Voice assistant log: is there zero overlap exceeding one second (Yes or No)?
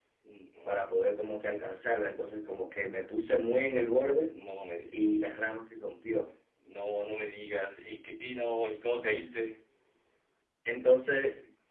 Yes